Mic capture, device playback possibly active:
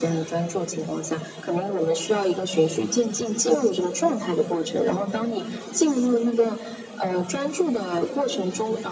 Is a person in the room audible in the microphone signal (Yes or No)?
No